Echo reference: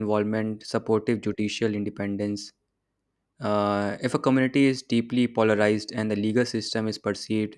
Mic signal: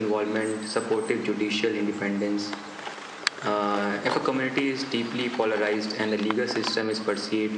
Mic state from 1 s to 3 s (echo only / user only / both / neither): echo only